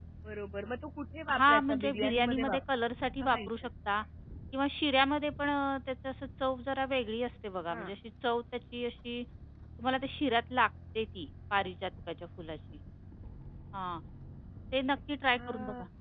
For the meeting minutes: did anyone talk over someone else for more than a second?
Yes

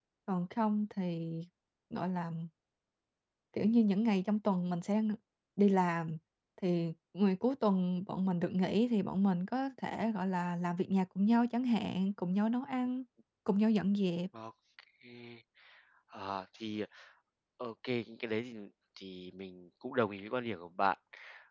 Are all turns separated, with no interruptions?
Yes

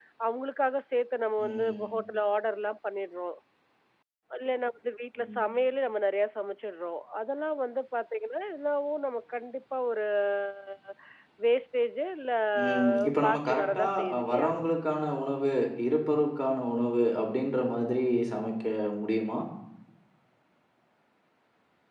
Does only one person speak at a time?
No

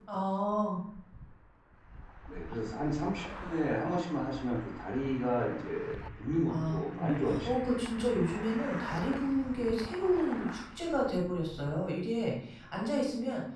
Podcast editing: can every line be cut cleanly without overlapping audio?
No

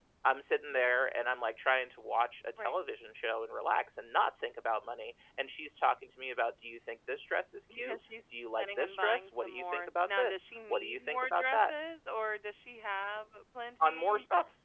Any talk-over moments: Yes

